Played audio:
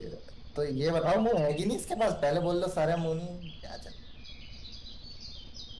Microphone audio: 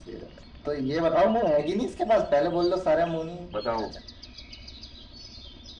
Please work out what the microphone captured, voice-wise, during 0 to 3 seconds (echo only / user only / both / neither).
echo only